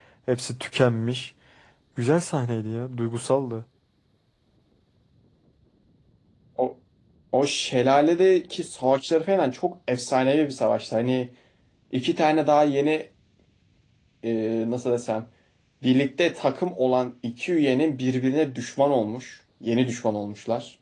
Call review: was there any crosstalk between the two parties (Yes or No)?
No